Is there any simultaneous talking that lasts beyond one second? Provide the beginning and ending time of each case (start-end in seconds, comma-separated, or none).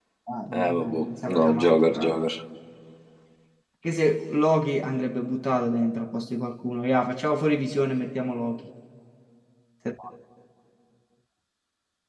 0.5-2.2